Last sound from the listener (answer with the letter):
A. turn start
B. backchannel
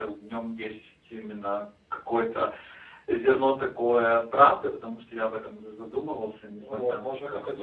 A